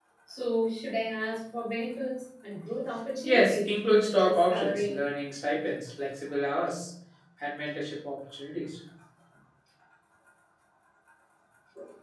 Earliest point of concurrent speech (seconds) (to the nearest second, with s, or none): 3 s